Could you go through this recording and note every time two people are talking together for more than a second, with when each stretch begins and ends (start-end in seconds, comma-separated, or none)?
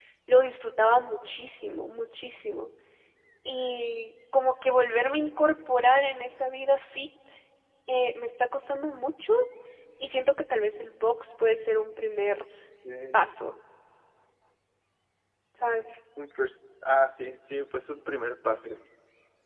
none